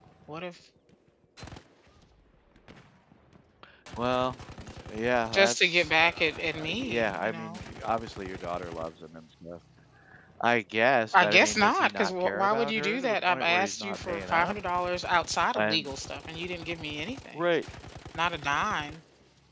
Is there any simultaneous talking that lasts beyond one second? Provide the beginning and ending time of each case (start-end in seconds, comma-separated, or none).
5.3-7.6, 11.1-14.5